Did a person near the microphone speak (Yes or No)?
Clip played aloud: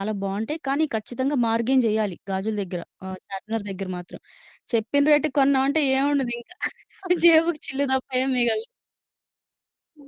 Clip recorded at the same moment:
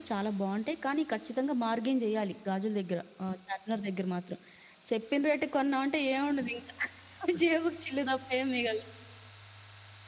No